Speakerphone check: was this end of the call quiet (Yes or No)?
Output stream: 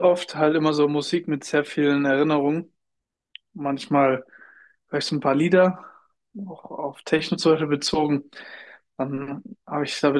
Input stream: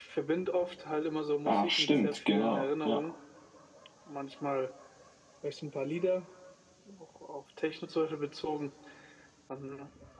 No